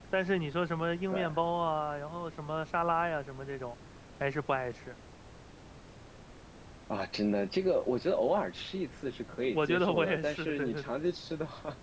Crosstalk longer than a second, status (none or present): present